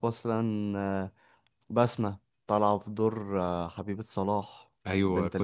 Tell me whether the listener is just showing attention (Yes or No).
No